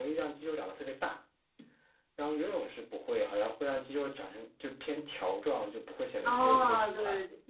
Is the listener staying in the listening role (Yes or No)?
No